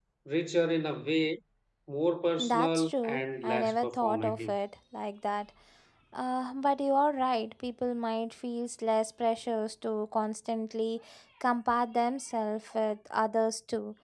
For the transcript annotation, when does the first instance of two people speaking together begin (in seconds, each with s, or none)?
2.4 s